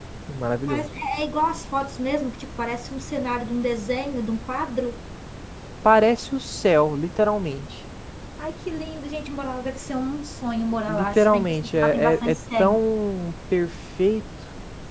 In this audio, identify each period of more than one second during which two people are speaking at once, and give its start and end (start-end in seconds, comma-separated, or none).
10.9-12.8